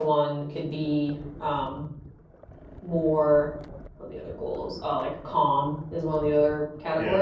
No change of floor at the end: Yes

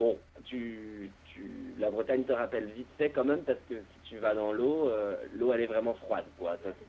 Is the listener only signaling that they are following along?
Yes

